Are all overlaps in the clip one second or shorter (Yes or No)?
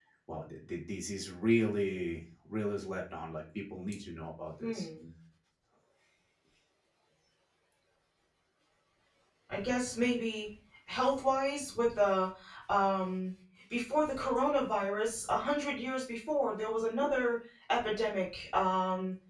Yes